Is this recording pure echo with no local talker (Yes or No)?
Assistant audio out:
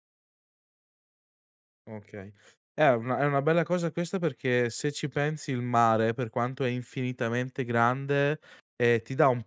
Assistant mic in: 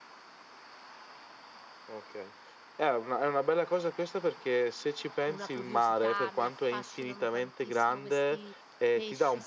No